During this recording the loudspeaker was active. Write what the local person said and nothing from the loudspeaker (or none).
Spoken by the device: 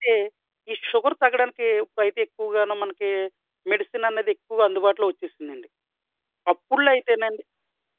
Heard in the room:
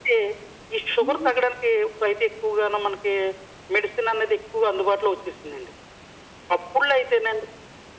హుహు.